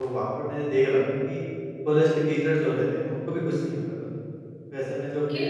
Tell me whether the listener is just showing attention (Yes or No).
Yes